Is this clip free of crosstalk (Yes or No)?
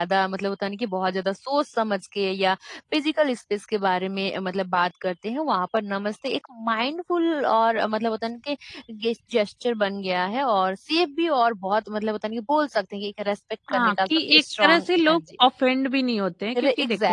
No